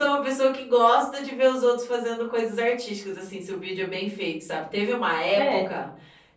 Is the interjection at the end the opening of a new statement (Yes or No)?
No